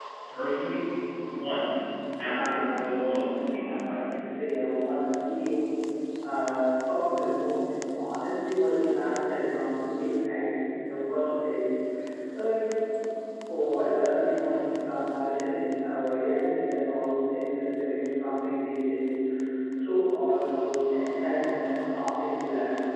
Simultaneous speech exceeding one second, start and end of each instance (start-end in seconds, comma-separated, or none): 2.2-4.0